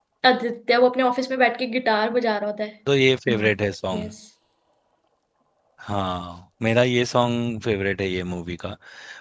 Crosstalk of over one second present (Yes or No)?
No